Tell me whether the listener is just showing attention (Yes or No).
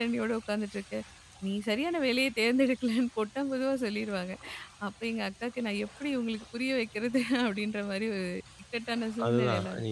No